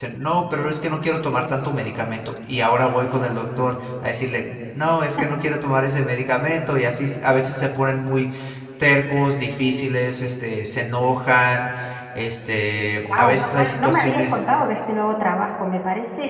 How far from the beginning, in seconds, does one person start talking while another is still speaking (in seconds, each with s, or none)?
13.1 s